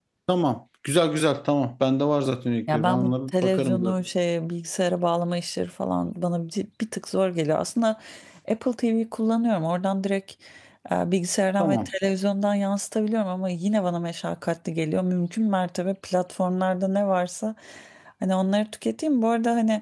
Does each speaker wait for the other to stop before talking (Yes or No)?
No